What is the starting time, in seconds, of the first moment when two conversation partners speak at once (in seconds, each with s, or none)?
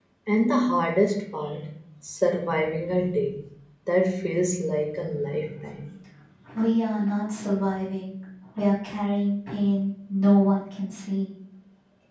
none